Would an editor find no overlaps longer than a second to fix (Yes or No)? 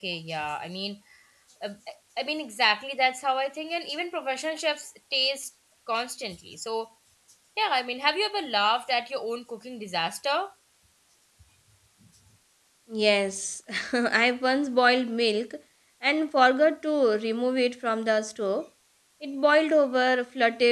Yes